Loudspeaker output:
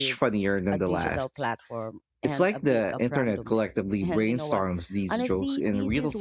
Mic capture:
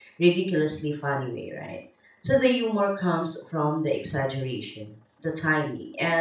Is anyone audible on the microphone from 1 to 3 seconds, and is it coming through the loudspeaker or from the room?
user only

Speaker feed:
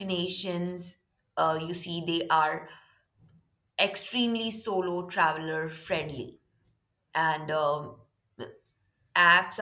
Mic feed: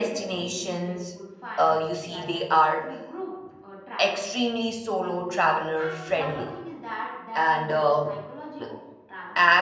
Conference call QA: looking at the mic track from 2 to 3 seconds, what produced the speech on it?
both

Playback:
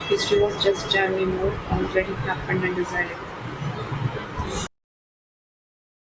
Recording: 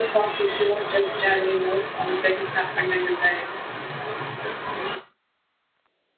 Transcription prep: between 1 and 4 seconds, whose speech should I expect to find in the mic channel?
echo only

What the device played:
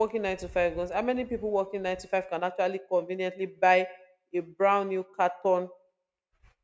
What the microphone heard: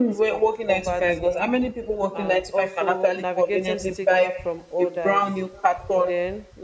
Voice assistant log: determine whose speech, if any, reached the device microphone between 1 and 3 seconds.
both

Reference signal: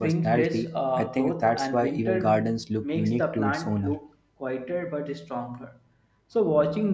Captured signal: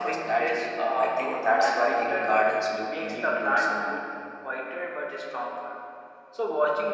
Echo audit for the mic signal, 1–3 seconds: echo only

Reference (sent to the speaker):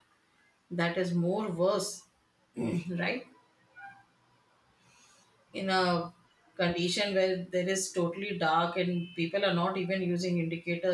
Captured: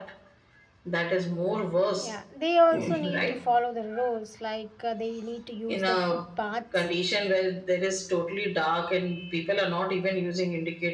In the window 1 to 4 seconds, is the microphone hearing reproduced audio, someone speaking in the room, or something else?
both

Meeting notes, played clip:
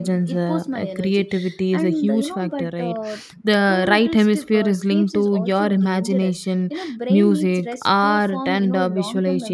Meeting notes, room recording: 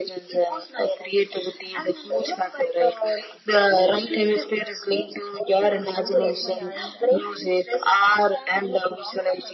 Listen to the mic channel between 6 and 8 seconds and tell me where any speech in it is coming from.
both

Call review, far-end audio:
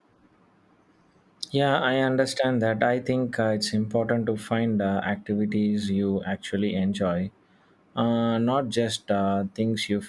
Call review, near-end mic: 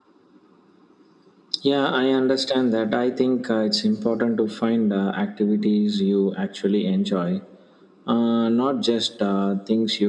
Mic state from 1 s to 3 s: echo only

